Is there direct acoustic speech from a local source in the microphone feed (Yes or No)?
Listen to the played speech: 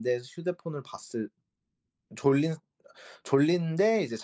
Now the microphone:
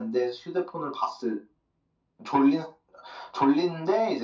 No